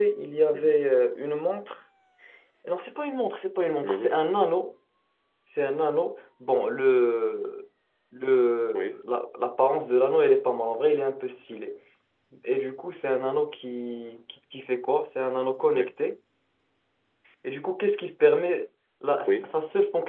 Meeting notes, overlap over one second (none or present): none